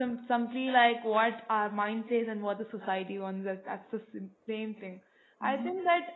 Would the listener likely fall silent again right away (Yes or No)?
Yes